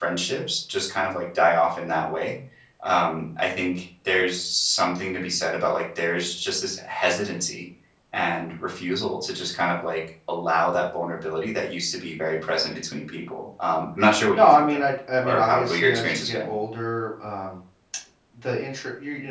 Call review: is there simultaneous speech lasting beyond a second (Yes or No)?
Yes